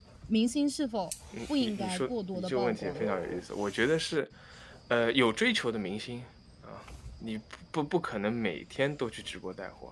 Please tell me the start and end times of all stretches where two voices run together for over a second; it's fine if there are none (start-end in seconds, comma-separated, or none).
1.6-3.1